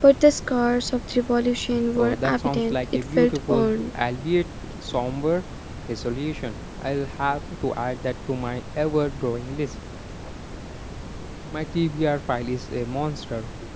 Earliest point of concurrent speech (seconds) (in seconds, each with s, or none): 2.0 s